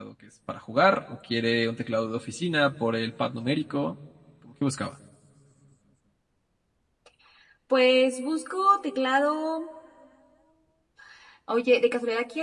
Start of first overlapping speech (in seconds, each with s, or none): none